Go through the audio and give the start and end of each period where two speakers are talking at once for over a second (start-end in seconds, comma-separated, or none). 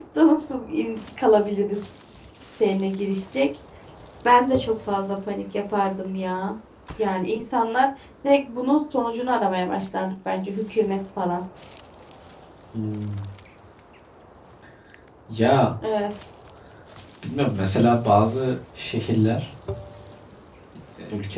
none